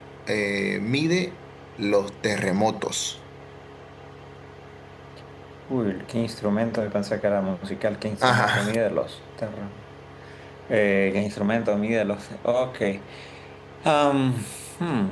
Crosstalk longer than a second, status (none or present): none